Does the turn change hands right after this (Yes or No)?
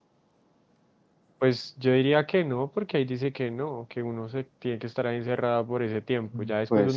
No